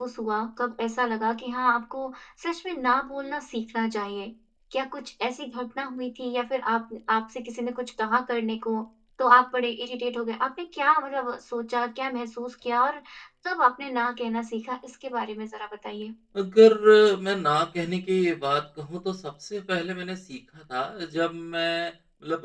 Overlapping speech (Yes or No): No